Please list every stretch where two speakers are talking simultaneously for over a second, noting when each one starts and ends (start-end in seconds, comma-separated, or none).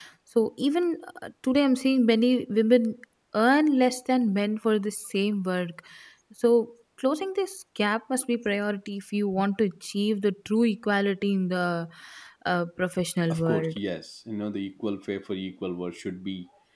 none